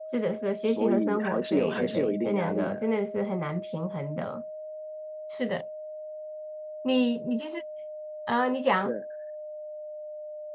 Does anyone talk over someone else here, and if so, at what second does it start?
0.7 s

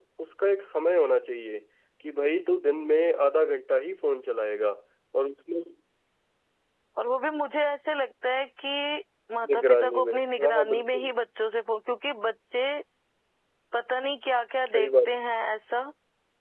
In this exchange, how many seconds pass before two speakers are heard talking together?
9.5 s

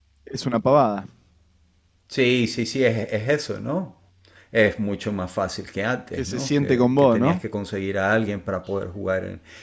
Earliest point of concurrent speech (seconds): 6.2 s

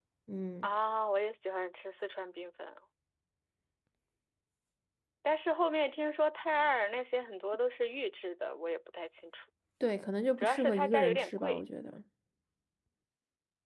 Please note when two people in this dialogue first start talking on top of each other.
10.4 s

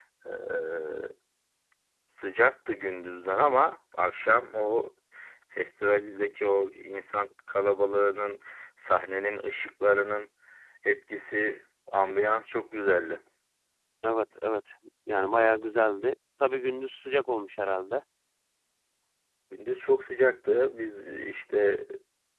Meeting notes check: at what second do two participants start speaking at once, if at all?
none

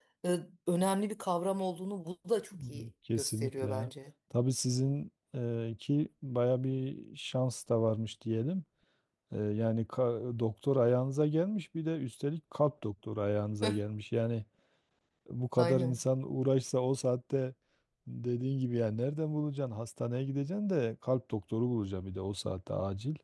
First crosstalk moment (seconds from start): 2.5 s

